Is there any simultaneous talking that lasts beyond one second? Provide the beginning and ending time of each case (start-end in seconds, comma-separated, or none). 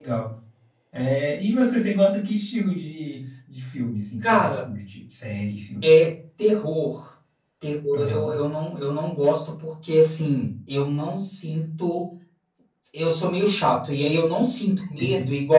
none